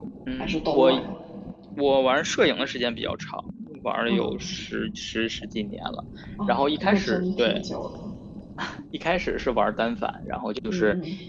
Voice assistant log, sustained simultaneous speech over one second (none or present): present